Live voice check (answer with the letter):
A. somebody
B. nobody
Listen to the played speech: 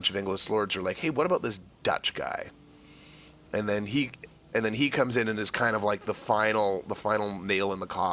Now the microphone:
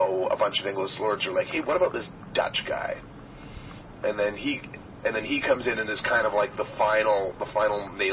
B